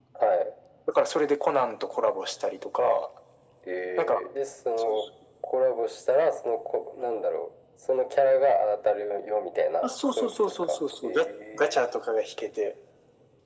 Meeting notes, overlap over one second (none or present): present